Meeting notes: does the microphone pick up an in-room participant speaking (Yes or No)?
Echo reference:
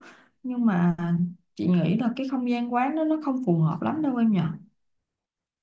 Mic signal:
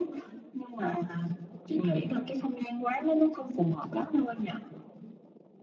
No